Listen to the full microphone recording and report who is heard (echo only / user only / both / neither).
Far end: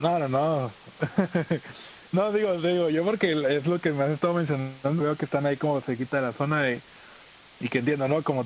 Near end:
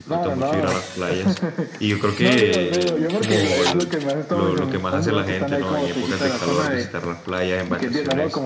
both